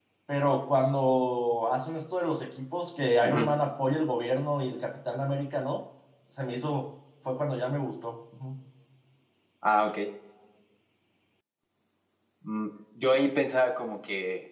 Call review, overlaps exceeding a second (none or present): none